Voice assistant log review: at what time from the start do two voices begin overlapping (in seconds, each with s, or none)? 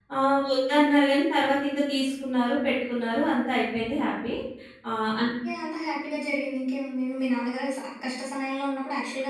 none